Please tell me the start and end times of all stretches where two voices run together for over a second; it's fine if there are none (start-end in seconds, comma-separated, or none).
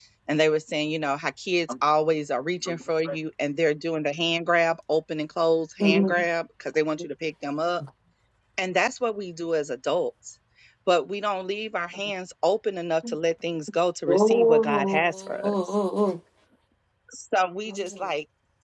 14.1-15.5